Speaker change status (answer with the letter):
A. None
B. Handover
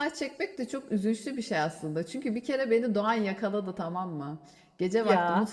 A